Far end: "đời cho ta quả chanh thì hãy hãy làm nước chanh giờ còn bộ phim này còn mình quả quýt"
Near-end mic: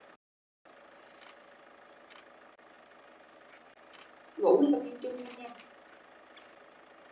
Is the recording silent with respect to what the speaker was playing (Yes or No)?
Yes